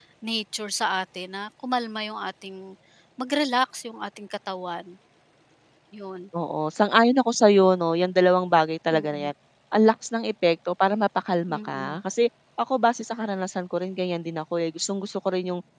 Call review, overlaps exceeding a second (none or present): none